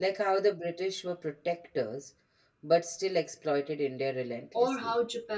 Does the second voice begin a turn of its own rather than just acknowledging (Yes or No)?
Yes